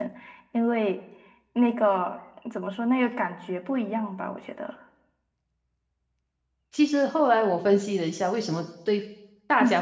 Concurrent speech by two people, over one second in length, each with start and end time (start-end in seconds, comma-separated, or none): none